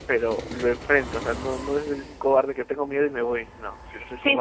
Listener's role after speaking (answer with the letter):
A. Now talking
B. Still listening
A